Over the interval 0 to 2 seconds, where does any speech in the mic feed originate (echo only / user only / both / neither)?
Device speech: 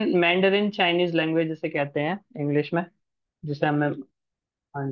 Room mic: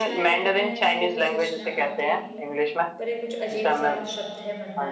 both